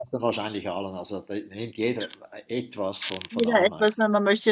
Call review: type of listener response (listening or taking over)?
taking over